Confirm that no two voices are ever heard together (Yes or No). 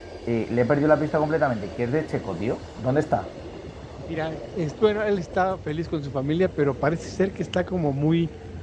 Yes